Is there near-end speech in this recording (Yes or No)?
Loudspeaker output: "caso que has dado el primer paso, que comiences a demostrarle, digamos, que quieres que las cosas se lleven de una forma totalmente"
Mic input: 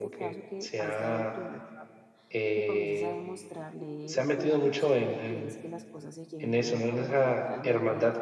Yes